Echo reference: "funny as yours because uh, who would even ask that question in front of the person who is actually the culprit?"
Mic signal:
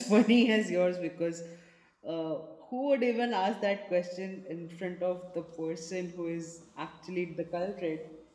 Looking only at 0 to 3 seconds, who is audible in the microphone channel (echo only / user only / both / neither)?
echo only